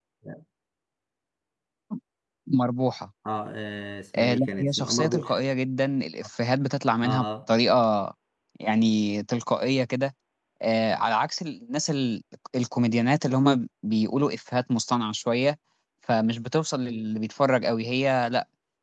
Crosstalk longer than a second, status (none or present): present